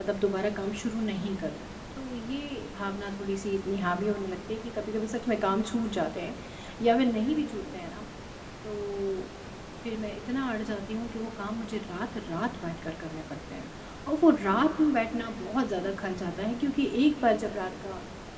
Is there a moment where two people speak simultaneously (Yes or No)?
No